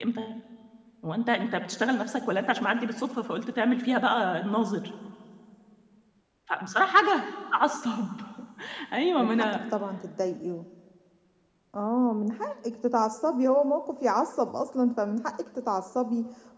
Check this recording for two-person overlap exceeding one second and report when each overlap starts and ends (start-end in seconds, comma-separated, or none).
none